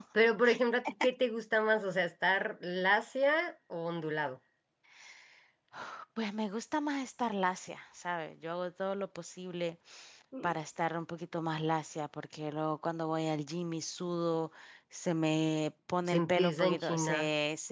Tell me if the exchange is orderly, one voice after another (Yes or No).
No